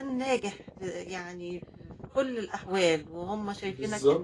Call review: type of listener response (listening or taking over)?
listening